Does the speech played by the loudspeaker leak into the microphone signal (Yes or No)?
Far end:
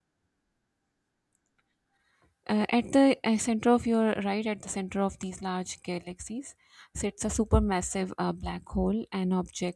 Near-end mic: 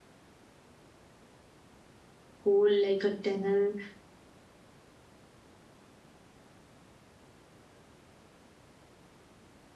No